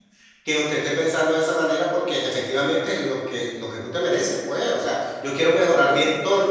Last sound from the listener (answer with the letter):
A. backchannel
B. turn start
A